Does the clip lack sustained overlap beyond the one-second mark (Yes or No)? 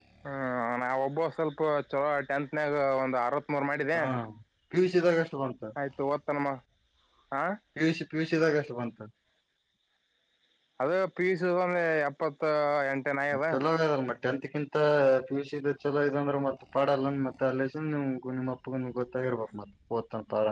Yes